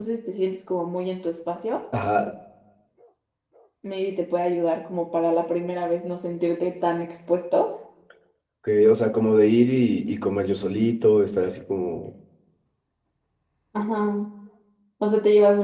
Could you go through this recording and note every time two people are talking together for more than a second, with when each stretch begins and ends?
none

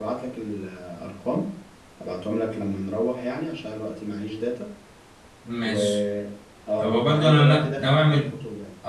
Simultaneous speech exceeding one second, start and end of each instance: 6.8-8.2

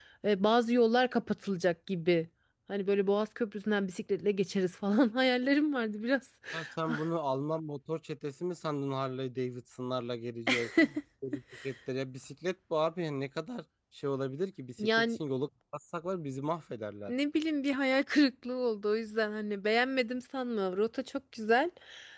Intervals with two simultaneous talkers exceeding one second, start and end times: none

